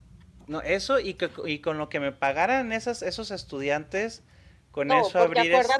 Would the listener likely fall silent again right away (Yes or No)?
No